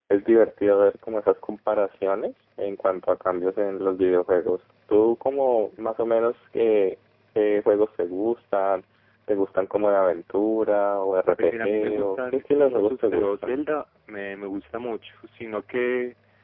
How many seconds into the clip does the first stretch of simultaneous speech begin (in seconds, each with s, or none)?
11.4 s